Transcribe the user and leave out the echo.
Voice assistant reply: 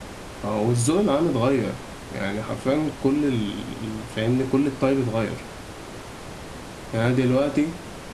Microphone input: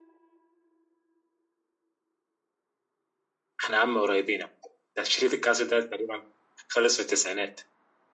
احنا عم قريبين ده شريط الكاسيت ده تقريبا خلص في التسعينات

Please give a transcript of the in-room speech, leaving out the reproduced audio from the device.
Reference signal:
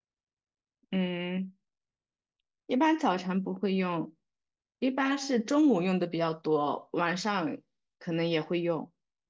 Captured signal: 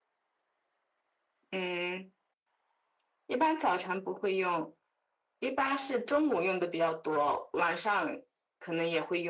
none

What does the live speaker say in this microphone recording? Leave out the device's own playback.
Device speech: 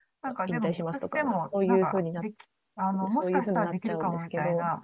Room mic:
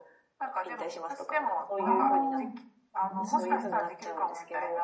ああ、なるほど。うん

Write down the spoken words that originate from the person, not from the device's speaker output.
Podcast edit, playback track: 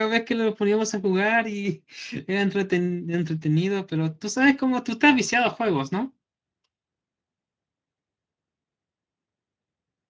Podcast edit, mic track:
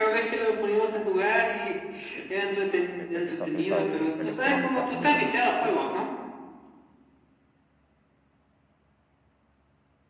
e- e- esas fiestas de electrónicas muy buenas, sí.

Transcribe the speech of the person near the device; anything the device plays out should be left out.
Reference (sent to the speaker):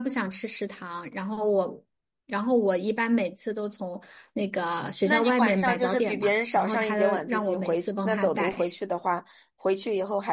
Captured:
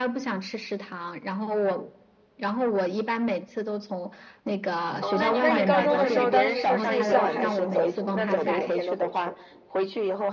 哦，那你高中的时候，当时是住校还是走读？就是每天都回去？

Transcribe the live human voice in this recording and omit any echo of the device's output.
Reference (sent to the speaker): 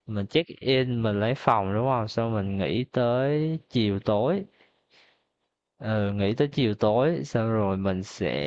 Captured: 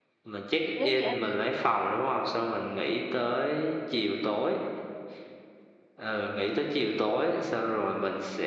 nếu như anh

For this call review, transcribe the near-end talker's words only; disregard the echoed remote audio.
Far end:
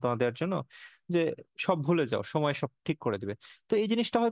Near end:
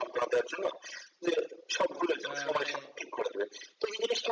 আহ, মানে

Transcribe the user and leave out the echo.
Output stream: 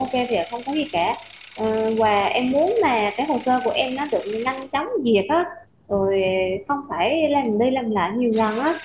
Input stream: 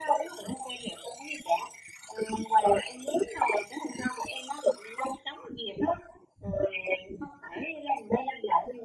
none

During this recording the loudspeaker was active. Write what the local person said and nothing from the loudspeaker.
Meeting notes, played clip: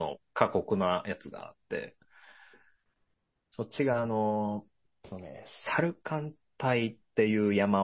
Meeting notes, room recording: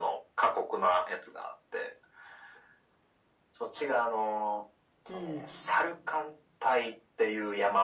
うん。

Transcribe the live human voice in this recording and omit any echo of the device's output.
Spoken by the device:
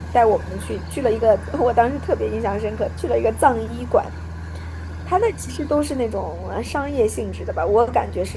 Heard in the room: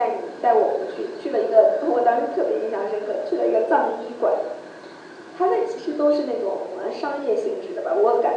none

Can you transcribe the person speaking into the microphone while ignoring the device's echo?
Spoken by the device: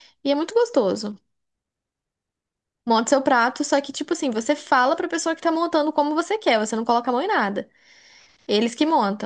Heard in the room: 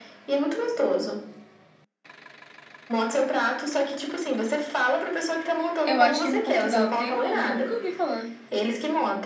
Eu acho que em Portugal não tem, não, porque eu nunca ouvi falar.

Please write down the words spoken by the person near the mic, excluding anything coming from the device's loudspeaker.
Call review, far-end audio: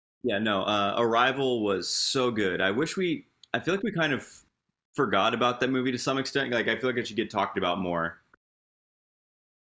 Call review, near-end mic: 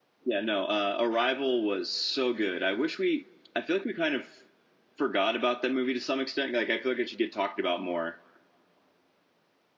none

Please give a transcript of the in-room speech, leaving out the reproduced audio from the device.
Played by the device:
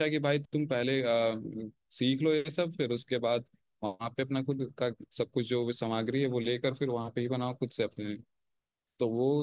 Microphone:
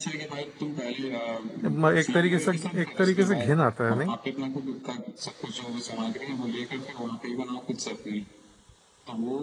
म- एक तरीके से एक तरीके से घिन आता है नहीं

